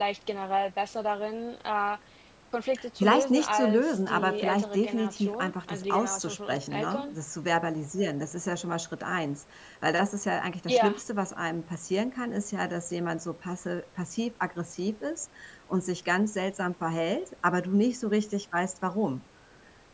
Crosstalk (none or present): present